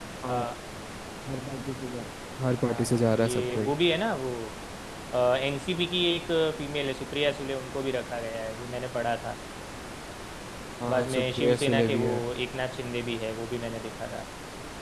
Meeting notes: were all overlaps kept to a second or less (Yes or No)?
No